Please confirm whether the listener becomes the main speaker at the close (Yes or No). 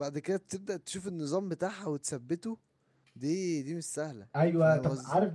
Yes